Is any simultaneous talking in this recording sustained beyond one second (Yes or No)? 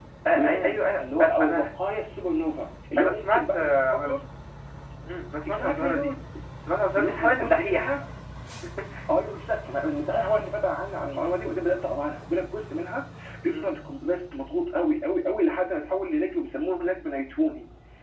Yes